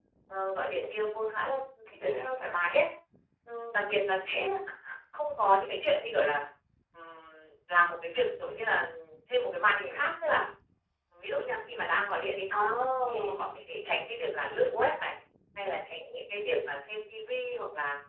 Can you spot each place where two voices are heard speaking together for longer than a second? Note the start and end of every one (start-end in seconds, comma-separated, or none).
none